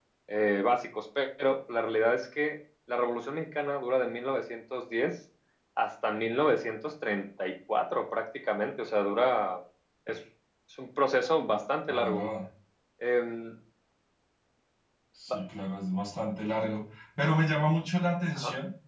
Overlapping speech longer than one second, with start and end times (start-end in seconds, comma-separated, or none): none